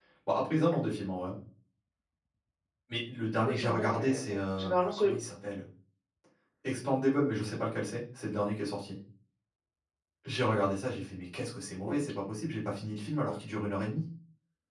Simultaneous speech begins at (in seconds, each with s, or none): 3.5 s